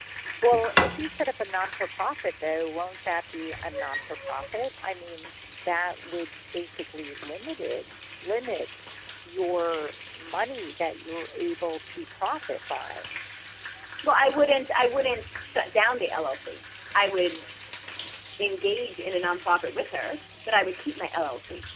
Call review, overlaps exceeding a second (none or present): none